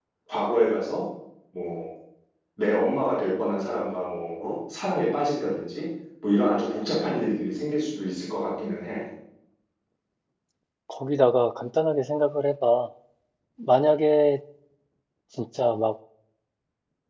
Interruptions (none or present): none